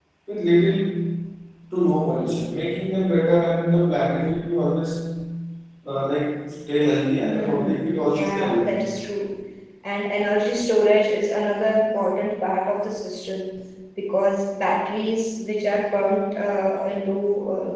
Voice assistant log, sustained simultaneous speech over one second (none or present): present